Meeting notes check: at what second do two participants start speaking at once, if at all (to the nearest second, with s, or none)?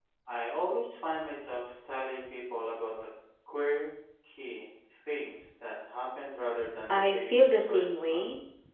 7 s